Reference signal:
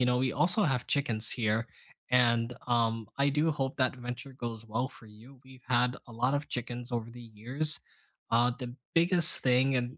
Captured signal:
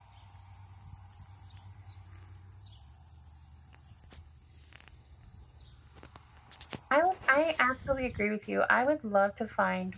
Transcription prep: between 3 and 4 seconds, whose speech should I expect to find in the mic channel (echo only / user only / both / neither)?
neither